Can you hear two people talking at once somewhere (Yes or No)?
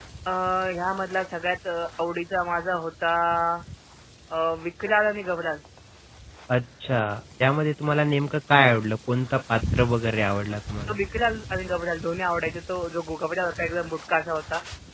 No